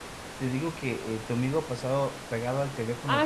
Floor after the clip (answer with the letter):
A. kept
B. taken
B